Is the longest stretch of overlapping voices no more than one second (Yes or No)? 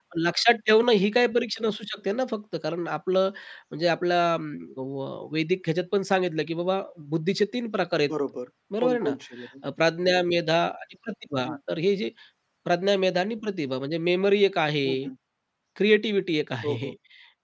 Yes